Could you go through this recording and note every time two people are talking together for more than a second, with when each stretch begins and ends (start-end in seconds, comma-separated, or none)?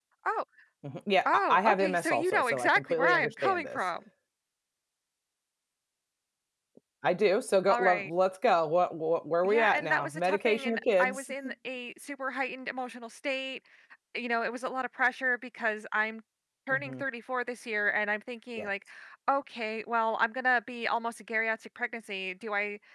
1.2-3.8, 9.4-11.3